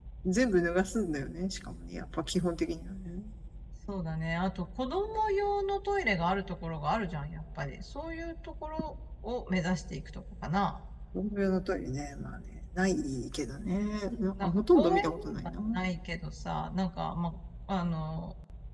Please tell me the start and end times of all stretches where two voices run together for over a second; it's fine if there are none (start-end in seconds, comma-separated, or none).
14.4-15.8